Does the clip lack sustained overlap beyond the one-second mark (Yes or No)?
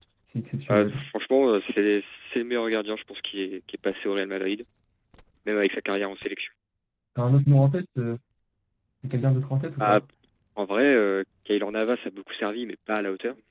Yes